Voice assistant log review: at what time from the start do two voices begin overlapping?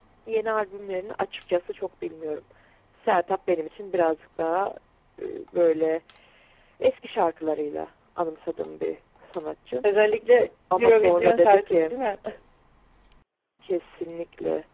10.8 s

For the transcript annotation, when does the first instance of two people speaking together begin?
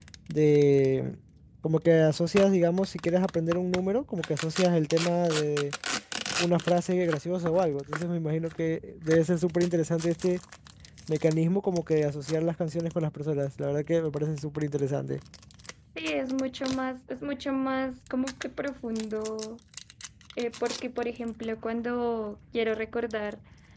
none

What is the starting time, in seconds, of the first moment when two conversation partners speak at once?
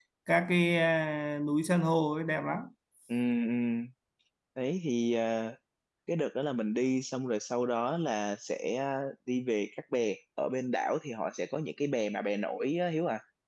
none

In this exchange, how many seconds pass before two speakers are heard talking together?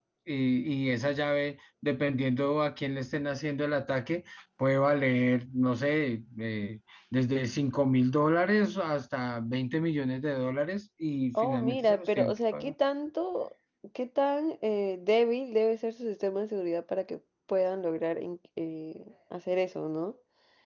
11.3 s

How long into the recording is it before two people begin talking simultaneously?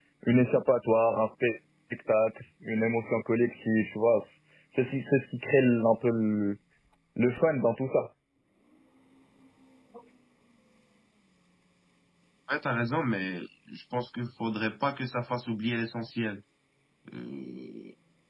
none

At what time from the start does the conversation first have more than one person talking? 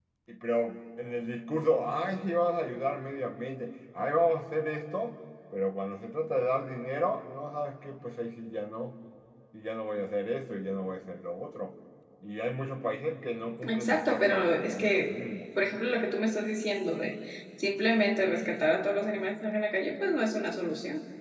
13.6 s

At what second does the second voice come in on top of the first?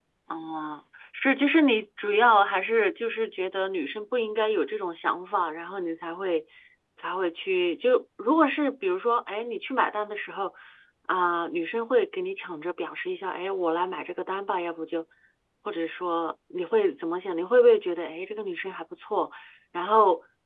none

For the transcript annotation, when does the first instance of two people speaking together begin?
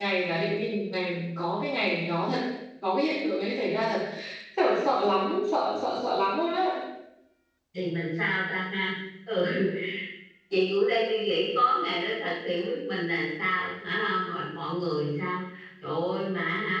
none

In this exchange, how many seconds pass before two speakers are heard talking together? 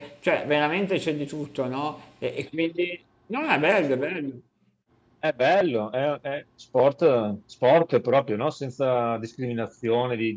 none

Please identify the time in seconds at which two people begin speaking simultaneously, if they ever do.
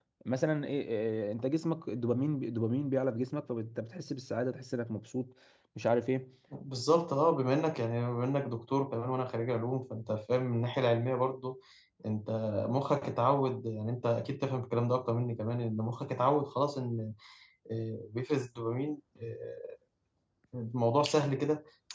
none

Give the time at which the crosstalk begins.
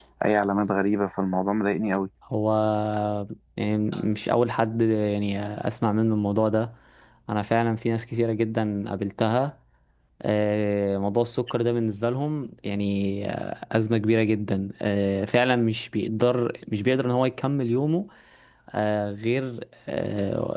none

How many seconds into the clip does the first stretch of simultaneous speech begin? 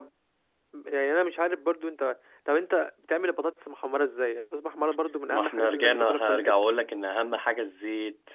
5.3 s

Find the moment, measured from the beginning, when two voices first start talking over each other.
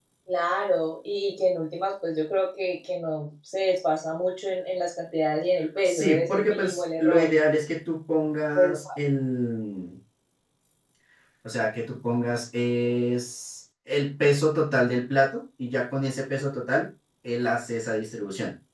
5.8 s

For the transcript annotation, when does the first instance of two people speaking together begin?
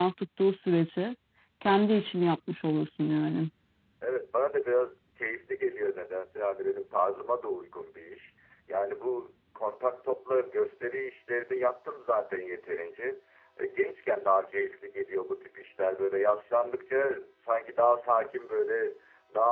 none

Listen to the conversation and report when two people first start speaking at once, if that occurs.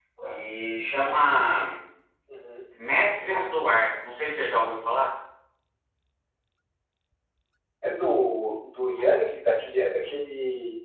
none

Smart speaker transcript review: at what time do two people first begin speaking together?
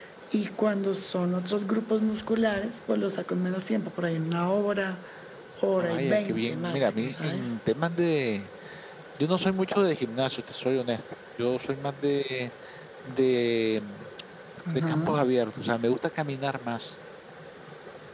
5.8 s

